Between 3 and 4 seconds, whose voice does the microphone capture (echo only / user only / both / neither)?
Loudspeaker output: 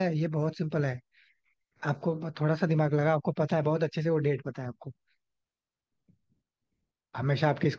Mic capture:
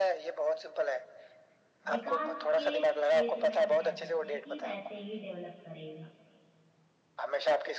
both